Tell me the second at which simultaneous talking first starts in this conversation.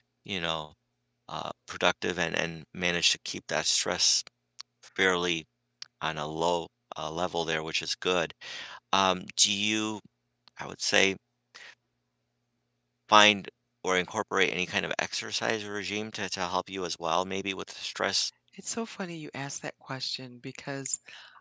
none

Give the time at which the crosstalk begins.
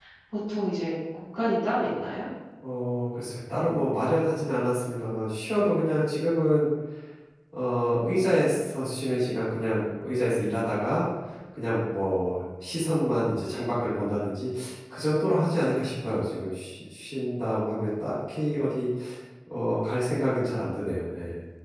none

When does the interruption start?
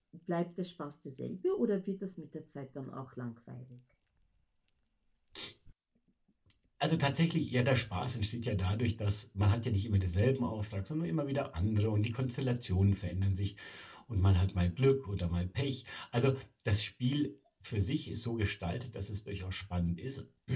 none

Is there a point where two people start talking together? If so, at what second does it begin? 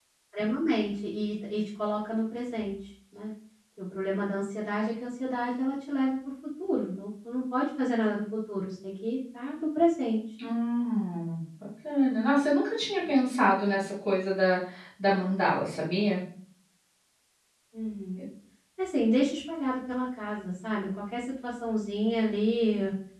none

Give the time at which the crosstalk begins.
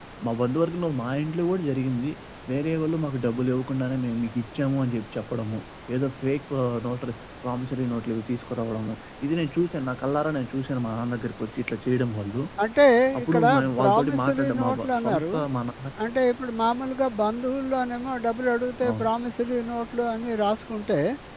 13.2 s

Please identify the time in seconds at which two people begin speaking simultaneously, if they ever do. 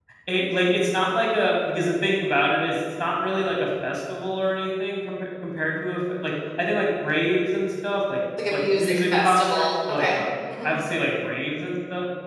8.4 s

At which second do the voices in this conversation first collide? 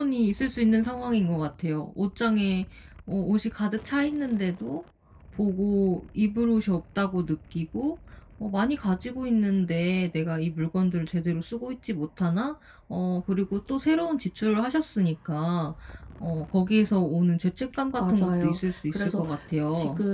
18.0 s

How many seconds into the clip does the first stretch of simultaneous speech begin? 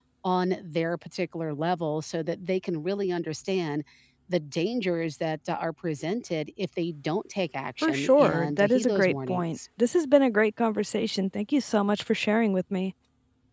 7.8 s

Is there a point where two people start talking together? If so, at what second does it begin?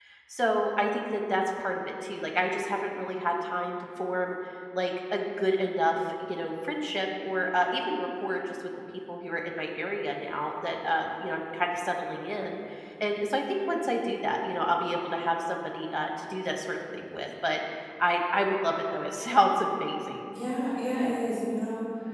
none

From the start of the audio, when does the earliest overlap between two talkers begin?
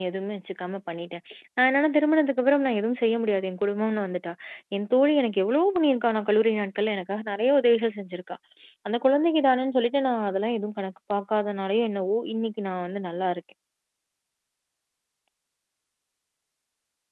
none

